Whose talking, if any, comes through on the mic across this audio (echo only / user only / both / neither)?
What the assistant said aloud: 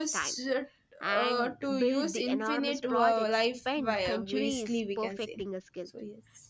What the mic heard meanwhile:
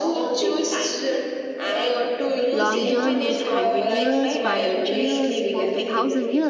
both